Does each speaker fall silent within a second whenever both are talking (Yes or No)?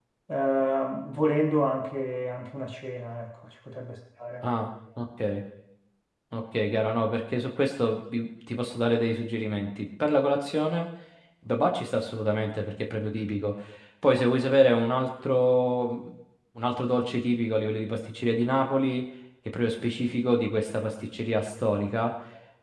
Yes